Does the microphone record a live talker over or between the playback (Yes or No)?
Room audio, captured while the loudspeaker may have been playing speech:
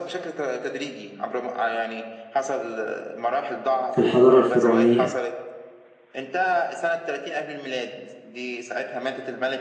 Yes